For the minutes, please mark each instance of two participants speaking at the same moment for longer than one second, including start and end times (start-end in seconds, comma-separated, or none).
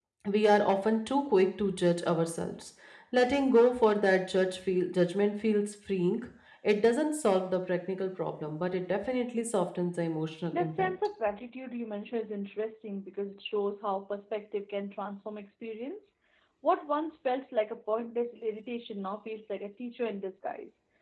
none